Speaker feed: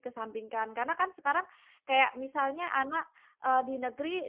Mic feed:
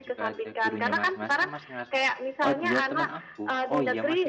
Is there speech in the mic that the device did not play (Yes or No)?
Yes